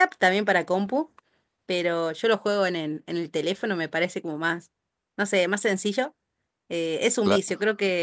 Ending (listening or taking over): listening